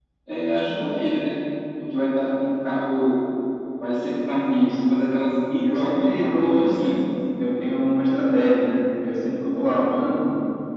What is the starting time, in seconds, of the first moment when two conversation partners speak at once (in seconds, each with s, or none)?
5.7 s